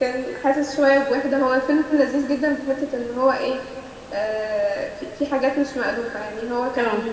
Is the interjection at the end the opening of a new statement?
No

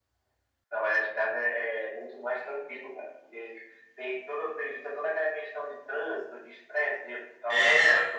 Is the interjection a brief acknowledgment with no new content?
No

